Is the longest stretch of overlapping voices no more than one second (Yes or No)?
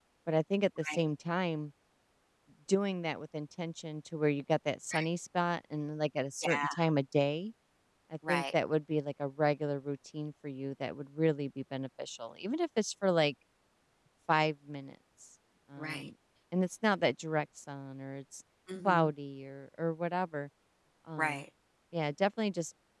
Yes